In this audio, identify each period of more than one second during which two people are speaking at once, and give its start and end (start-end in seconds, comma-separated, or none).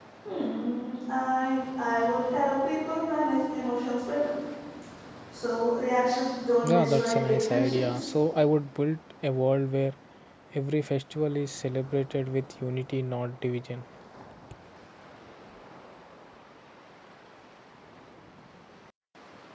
6.6-8.0